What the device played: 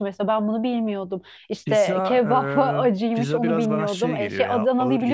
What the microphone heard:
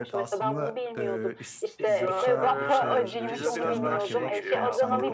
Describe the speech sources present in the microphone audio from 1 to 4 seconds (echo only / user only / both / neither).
both